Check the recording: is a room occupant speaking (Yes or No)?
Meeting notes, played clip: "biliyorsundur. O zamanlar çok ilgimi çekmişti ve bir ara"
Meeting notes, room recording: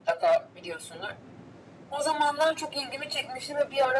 No